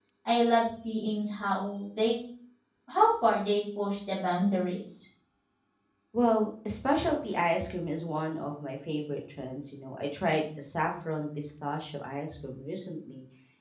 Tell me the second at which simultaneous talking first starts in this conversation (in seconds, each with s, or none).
none